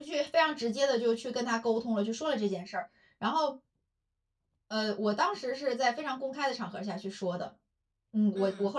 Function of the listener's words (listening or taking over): listening